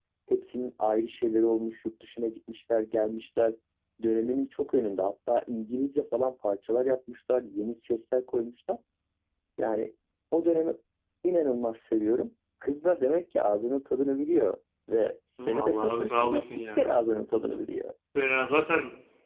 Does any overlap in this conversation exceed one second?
Yes, from 15.4 s

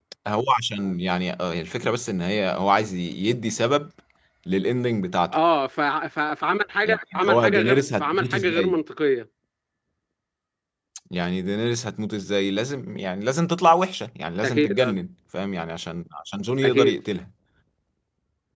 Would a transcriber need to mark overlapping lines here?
Yes, from 6.8 s

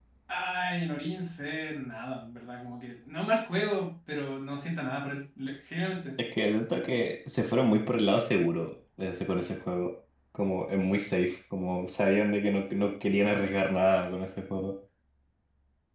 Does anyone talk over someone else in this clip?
No

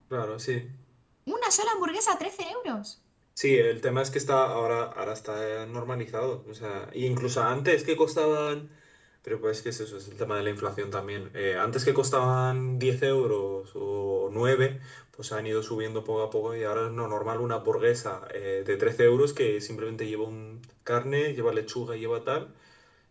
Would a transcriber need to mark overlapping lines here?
No

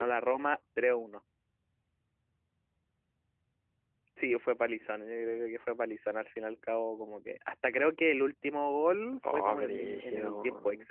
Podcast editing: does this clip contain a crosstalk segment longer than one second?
Yes, from 9.2 s

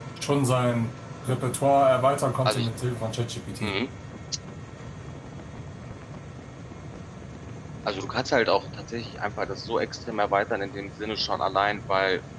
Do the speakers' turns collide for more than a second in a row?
No

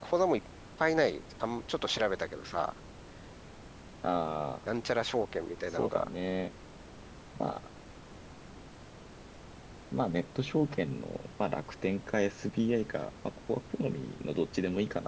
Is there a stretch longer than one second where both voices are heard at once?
No

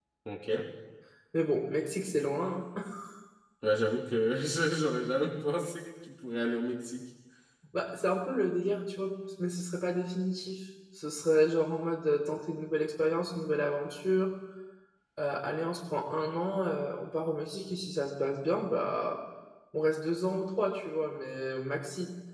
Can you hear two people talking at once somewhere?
No

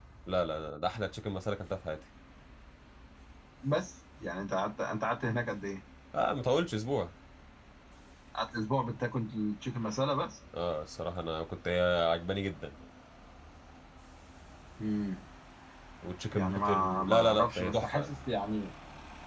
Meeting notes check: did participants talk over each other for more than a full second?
Yes, from 16.3 s

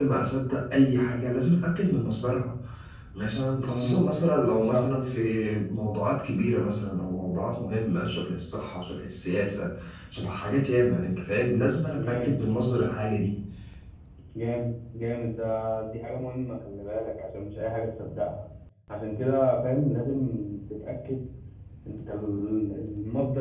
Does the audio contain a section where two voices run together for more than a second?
No

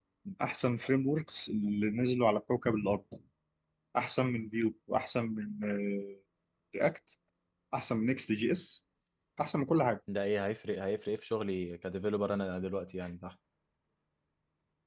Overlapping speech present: No

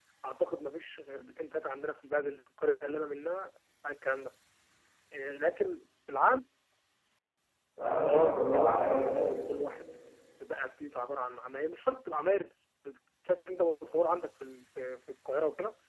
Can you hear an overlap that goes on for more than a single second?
Yes, from 8.0 s

